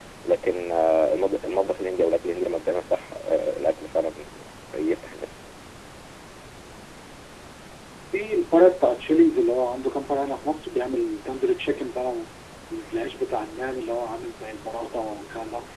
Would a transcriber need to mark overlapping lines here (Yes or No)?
No